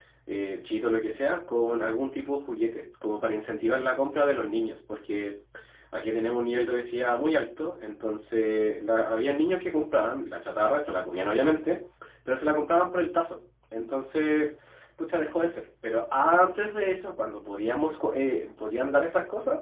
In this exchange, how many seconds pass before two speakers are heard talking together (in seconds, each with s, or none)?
none